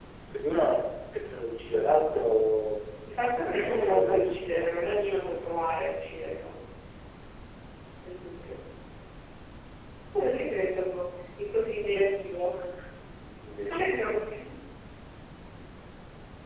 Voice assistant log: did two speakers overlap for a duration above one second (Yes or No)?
Yes